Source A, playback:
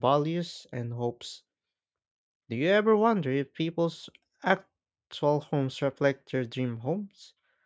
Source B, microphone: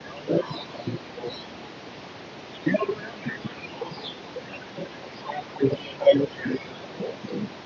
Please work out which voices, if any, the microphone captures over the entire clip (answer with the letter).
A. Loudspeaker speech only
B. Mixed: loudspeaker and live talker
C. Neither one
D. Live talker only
A